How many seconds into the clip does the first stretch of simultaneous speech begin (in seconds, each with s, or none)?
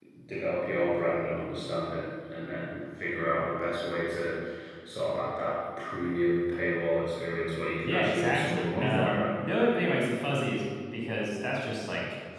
7.9 s